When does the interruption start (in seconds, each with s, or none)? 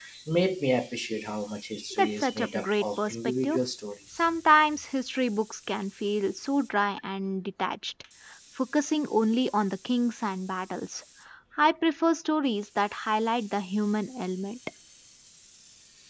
2.0 s